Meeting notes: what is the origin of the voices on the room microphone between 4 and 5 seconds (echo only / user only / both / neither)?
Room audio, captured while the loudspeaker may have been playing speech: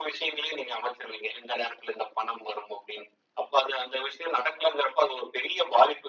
echo only